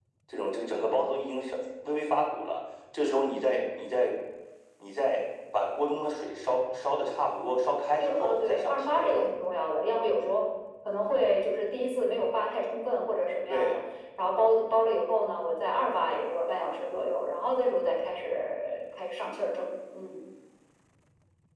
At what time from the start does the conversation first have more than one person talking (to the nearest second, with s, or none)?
8 s